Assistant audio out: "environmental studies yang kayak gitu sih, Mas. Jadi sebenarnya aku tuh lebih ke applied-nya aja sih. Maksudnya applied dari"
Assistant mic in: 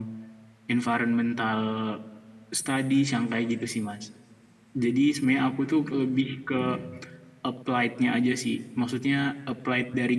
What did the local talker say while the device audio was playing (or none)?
none